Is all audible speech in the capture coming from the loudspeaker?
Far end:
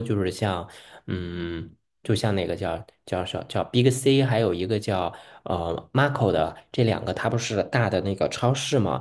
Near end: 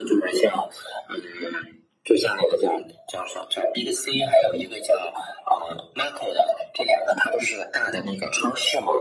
Yes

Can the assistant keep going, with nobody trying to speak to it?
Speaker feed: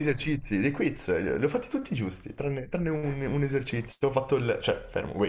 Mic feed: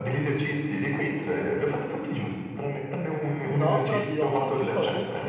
No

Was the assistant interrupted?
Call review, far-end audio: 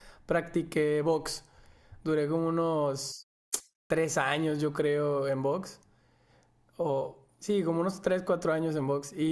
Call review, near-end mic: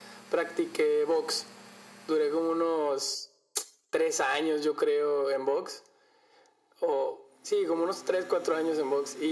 No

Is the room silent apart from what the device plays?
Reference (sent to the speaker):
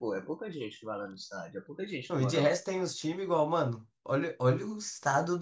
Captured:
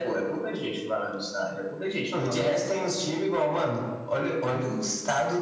Yes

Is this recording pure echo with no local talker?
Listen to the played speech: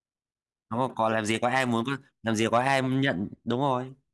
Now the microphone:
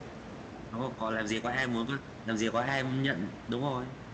Yes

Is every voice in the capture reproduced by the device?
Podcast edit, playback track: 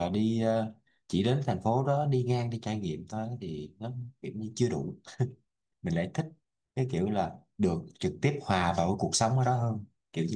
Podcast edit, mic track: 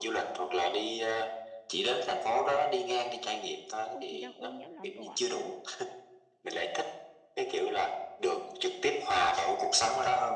No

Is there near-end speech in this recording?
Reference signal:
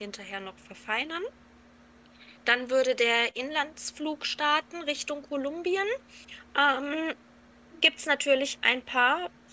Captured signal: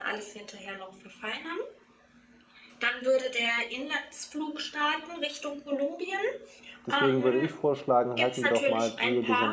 Yes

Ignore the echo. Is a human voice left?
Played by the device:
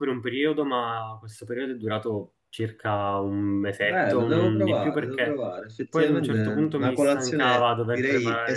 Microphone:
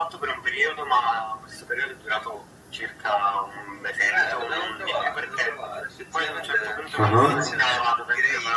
Yes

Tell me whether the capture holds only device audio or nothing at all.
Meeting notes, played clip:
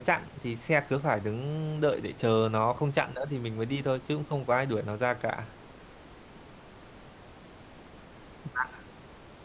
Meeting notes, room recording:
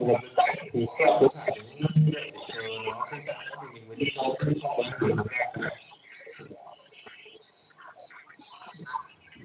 Yes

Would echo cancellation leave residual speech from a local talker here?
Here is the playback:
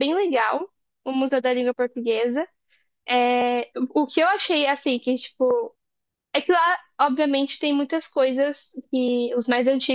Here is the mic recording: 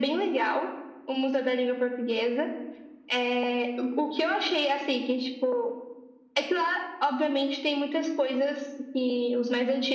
No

